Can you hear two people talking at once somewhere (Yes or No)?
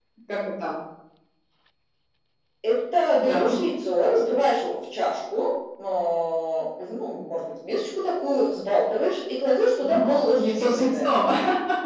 Yes